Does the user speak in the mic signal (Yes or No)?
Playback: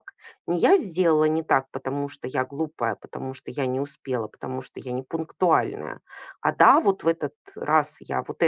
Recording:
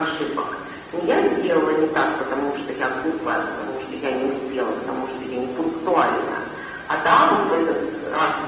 No